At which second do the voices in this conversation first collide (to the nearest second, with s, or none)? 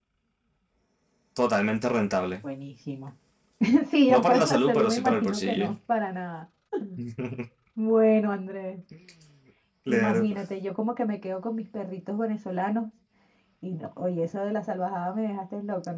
4 s